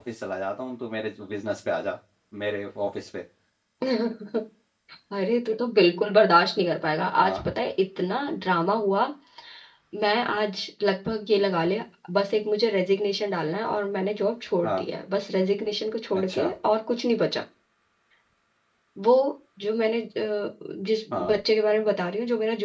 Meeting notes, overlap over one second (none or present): none